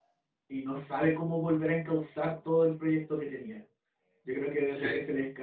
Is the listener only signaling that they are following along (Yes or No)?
Yes